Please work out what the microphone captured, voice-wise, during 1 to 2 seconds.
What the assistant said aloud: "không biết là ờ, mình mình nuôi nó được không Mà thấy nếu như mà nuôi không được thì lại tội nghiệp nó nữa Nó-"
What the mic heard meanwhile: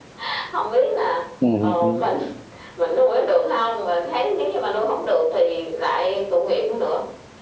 both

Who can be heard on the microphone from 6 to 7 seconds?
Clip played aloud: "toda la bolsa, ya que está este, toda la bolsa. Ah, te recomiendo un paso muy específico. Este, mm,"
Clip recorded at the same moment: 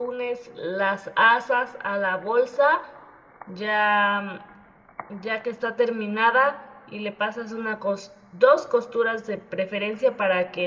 user only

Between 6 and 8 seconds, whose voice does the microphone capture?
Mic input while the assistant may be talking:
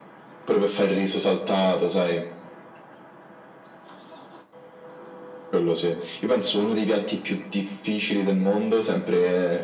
echo only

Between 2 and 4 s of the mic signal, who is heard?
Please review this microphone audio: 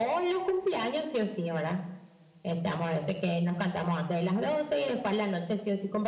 echo only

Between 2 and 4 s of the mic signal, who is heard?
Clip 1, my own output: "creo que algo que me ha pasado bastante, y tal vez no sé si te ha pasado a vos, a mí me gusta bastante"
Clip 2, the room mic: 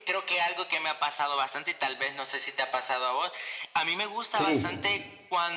echo only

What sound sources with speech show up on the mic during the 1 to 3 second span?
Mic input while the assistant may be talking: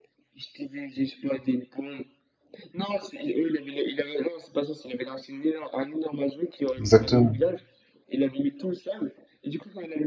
echo only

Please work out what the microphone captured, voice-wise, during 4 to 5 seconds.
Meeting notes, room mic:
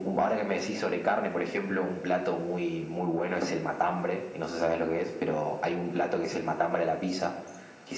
echo only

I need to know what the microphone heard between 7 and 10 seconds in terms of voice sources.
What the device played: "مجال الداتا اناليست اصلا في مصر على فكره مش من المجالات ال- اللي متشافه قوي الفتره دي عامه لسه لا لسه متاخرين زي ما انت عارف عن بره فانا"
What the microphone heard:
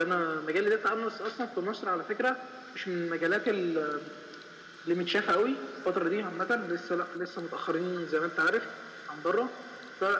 echo only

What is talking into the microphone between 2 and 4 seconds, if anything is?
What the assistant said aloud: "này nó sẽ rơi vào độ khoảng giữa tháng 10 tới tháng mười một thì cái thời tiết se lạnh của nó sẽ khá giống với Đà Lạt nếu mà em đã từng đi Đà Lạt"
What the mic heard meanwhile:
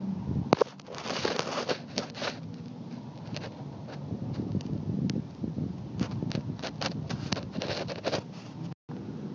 neither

